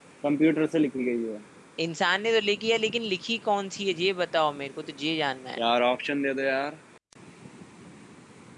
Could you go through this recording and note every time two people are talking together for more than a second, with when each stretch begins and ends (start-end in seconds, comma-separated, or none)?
none